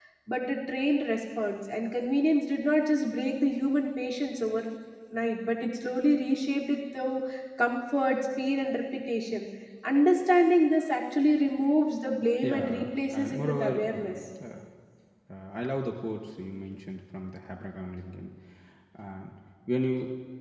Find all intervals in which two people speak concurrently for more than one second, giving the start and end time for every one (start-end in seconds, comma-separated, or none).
12.4-14.1